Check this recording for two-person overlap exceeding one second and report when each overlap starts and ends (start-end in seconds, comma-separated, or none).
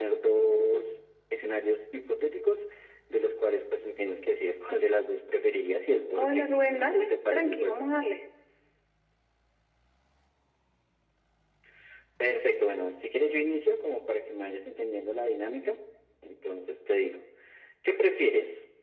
6.2-7.8